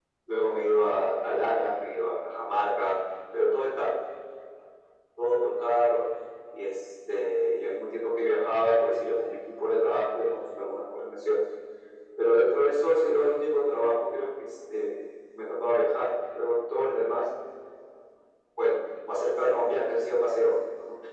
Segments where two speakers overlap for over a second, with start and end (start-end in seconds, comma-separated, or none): none